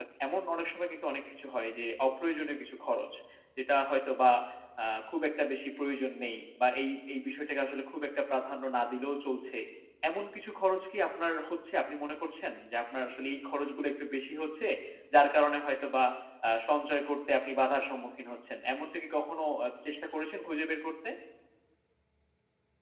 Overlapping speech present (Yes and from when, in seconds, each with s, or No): No